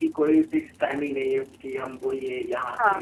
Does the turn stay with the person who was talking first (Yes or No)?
Yes